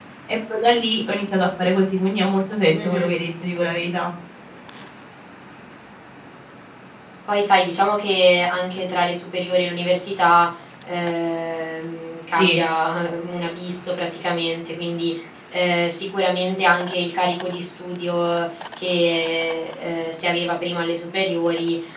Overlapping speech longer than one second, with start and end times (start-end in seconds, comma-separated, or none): none